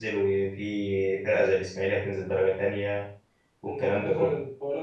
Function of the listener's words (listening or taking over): taking over